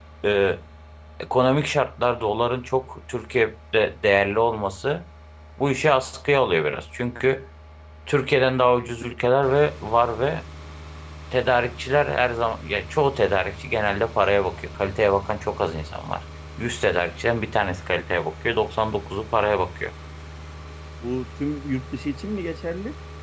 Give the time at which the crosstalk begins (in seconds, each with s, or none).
none